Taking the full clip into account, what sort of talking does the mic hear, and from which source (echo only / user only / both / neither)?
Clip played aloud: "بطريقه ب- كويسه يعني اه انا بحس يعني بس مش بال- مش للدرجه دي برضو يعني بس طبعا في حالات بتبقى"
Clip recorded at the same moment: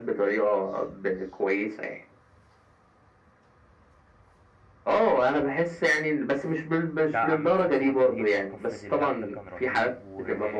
both